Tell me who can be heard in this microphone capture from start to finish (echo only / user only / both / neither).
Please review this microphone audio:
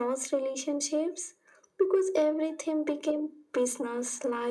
echo only